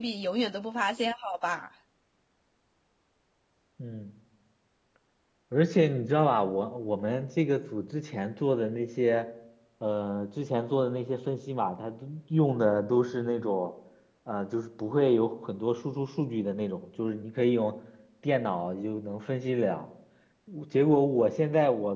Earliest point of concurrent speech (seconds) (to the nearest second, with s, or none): none